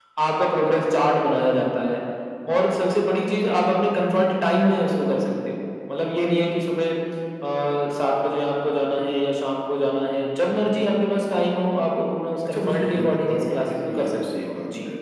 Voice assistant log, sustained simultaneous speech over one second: present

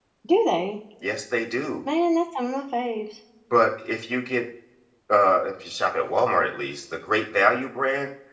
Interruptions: none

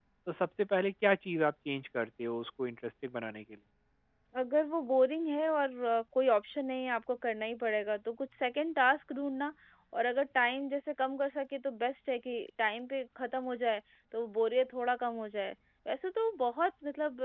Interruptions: none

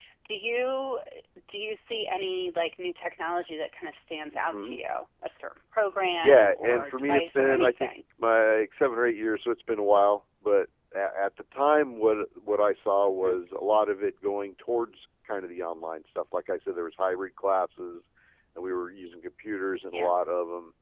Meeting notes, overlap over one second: present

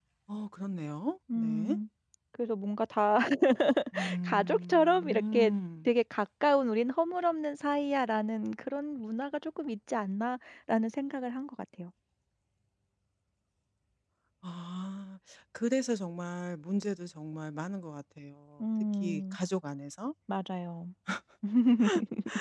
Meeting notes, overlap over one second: present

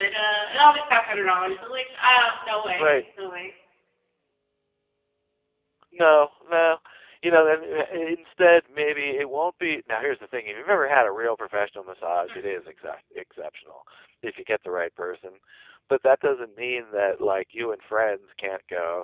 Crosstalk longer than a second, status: none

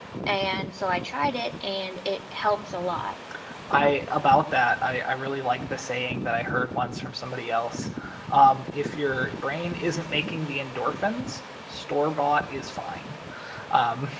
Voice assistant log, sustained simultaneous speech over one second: none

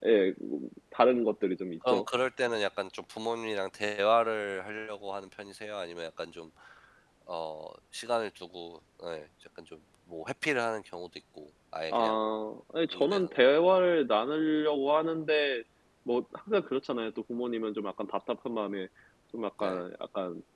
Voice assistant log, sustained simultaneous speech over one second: none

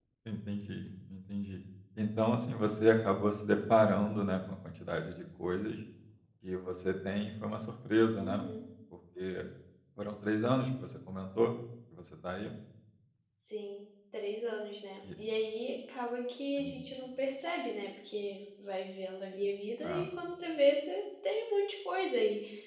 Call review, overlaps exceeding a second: none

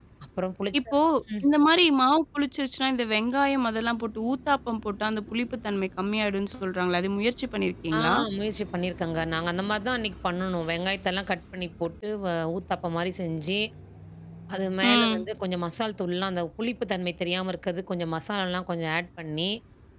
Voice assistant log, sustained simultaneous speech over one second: none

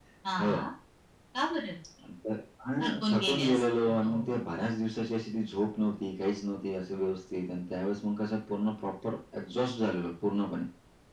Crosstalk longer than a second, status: present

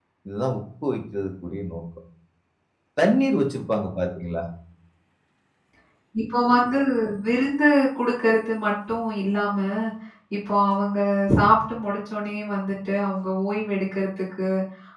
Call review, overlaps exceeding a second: none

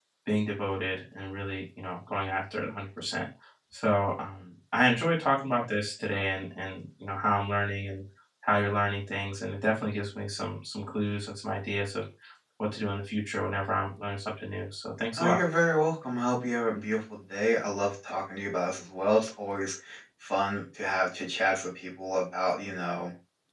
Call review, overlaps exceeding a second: none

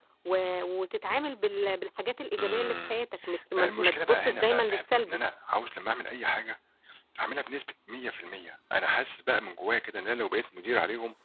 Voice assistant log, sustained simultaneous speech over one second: present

